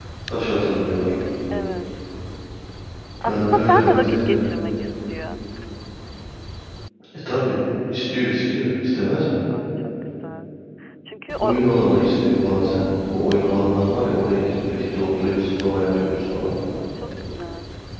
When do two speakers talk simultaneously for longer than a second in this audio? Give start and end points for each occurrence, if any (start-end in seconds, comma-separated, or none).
3.2-4.4